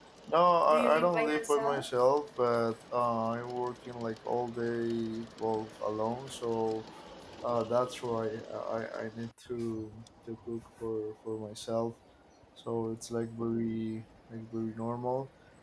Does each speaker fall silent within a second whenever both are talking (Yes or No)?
No